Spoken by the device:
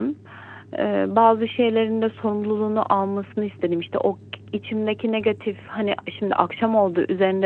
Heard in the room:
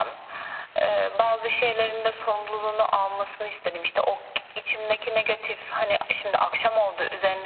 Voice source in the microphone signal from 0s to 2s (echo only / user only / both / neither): echo only